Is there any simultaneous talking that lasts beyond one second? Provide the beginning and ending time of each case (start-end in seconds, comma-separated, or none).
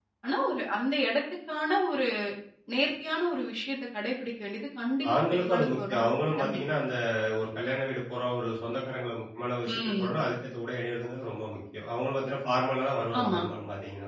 5.1-6.6